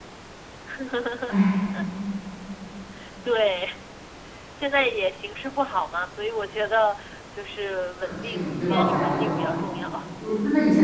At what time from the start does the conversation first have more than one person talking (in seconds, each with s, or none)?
8.0 s